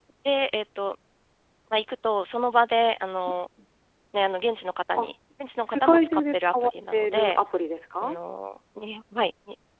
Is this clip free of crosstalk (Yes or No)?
No